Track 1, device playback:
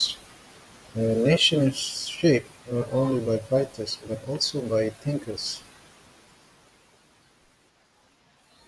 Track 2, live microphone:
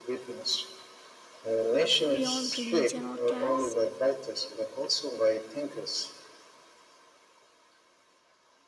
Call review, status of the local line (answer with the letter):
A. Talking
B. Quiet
A